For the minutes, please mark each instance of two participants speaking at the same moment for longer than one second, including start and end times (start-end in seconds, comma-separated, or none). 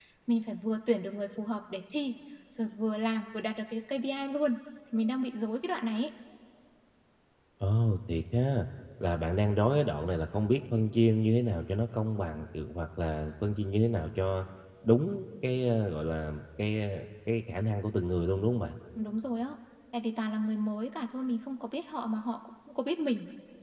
none